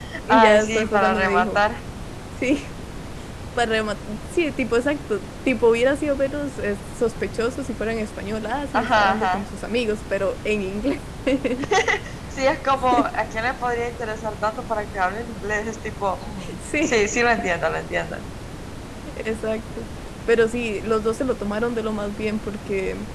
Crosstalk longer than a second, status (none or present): present